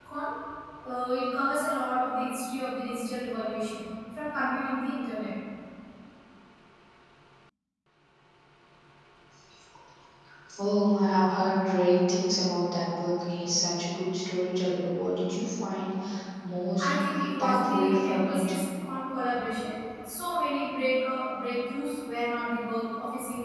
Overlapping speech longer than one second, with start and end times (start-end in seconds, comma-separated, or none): 16.8-18.6